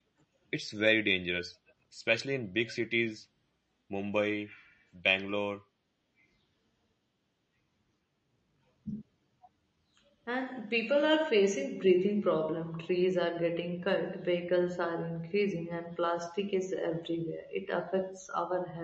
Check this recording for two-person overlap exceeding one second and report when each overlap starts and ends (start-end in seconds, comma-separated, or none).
none